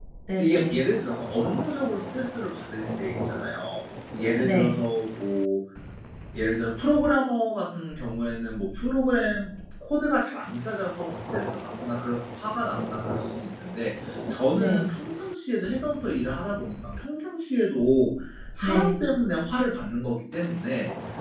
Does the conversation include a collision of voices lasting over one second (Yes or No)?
No